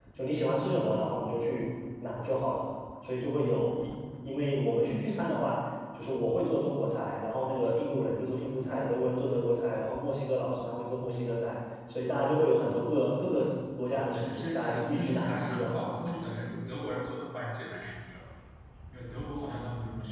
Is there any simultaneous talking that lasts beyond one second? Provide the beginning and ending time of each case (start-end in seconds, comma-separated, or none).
13.9-15.9